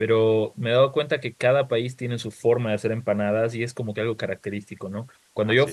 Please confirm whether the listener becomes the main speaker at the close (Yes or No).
No